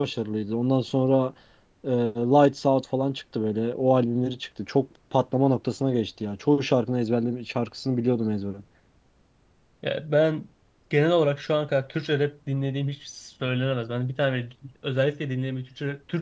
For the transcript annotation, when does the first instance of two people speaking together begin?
none

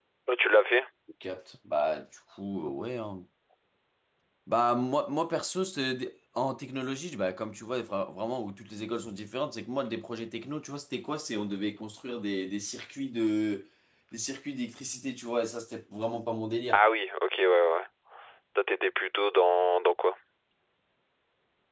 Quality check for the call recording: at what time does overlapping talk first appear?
none

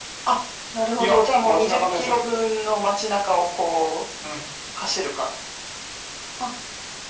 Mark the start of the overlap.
1 s

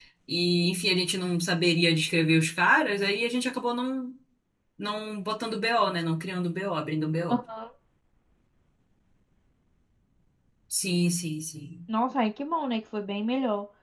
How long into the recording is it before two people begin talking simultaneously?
none

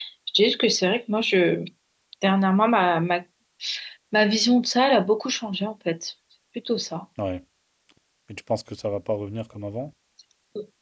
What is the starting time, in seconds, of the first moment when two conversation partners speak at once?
none

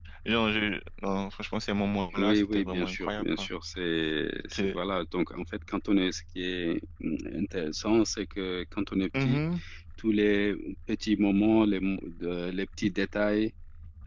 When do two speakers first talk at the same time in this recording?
2 s

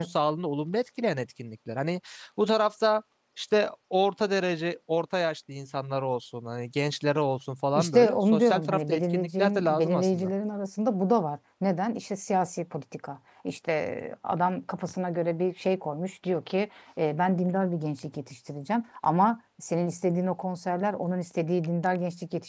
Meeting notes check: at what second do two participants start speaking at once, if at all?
8 s

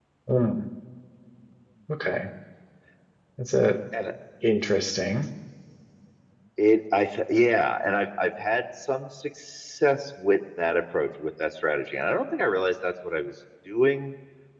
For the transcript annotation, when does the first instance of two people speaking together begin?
none

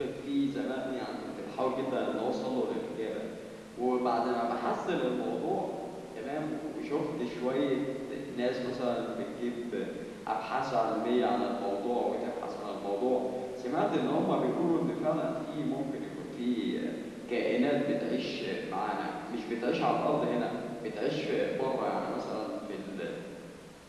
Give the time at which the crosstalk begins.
none

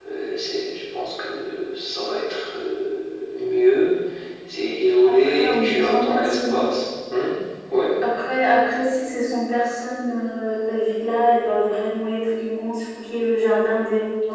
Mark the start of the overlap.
5 s

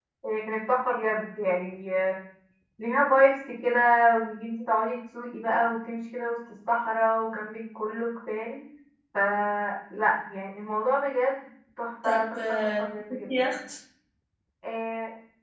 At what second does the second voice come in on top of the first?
12 s

